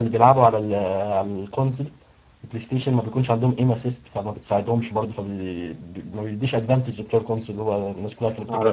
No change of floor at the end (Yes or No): No